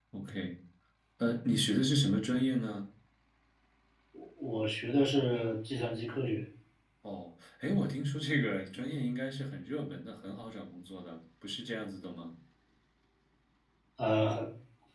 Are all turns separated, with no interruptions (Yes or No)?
Yes